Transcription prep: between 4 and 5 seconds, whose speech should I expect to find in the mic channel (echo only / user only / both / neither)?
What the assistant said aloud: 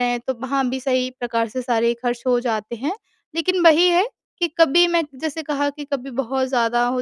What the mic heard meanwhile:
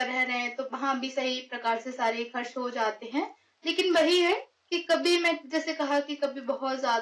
echo only